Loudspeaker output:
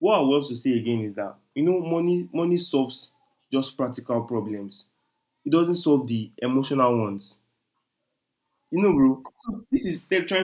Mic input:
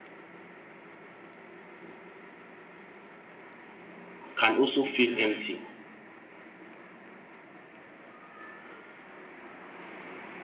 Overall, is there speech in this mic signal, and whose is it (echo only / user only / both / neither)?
user only